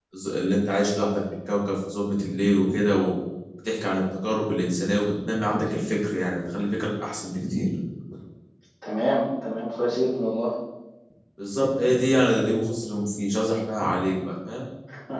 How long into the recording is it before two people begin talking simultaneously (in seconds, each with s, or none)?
none